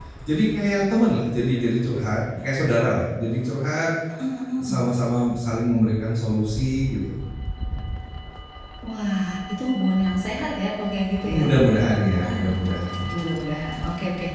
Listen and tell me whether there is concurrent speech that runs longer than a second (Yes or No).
No